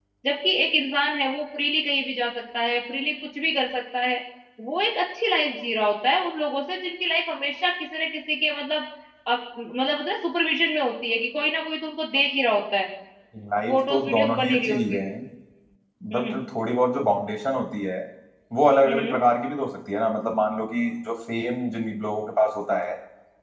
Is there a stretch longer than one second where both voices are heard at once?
Yes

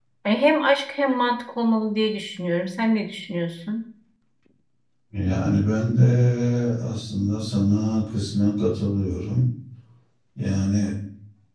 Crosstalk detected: No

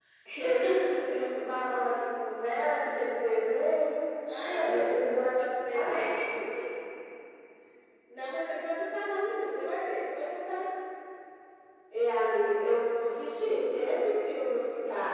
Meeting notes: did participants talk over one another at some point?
Yes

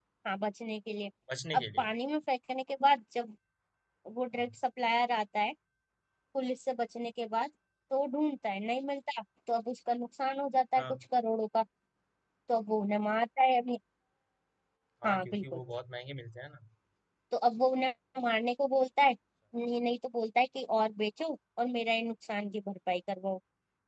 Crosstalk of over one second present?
No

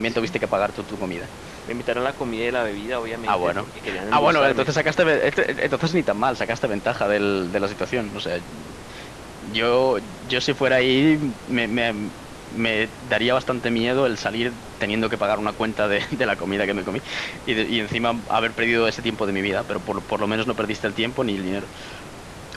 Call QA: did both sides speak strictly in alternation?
No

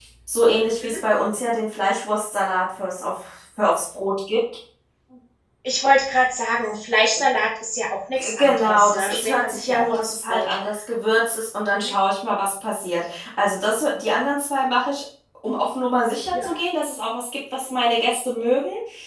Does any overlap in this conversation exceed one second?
Yes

